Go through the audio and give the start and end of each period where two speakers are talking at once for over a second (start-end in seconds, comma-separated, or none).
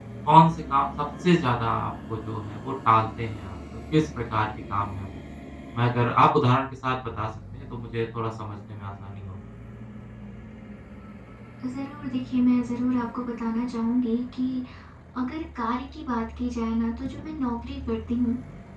none